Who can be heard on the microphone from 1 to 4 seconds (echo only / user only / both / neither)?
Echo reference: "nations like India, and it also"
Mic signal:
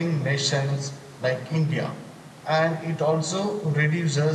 echo only